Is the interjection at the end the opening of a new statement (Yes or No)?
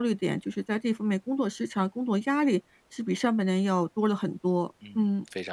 Yes